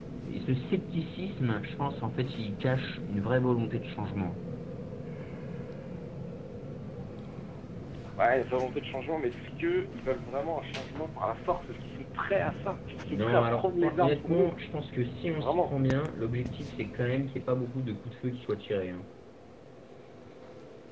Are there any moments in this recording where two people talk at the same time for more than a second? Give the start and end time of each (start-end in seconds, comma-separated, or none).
13.1-14.5